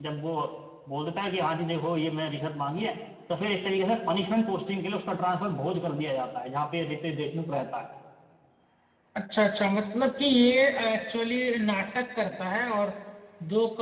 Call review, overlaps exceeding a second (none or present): none